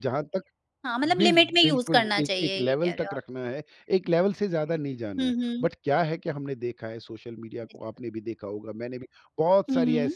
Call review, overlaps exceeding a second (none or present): present